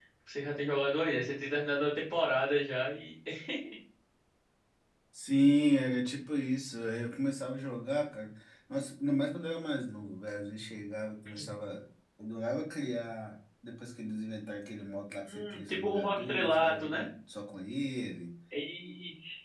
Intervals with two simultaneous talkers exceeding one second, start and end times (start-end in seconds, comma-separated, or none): 15.2-17.1